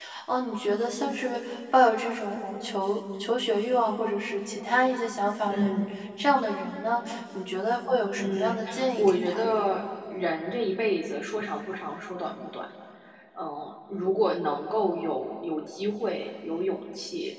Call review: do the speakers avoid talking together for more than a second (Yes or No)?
No